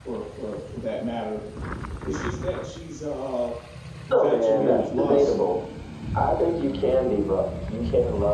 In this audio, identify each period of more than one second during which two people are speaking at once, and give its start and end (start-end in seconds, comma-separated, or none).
4.1-5.4